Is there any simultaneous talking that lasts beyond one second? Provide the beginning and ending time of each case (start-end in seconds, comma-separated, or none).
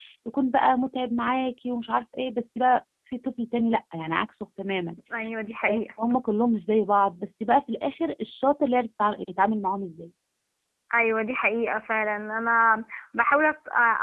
none